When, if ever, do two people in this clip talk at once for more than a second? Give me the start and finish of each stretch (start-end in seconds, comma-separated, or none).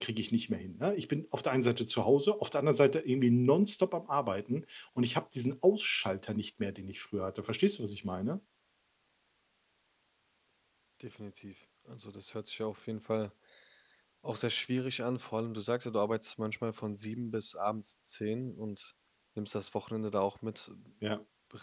none